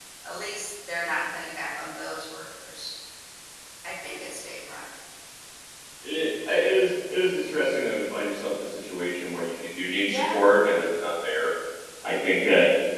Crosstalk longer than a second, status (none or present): none